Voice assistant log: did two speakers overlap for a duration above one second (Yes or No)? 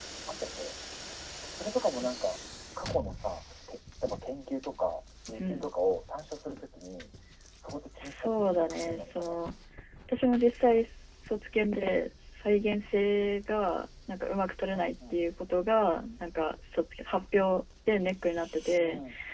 Yes